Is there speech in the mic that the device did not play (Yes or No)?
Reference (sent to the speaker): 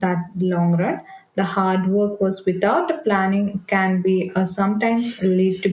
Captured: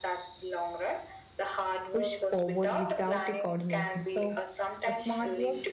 Yes